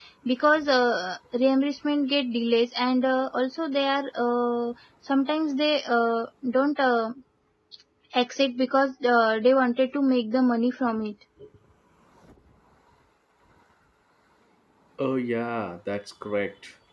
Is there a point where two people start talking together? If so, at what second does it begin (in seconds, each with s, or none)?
none